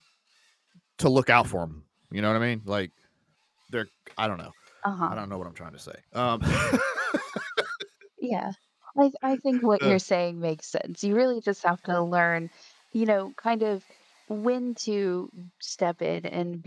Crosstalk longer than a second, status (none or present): none